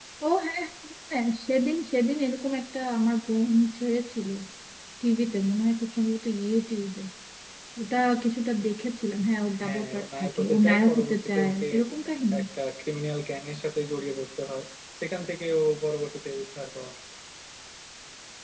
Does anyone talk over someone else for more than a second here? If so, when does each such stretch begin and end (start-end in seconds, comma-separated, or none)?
9.6-11.7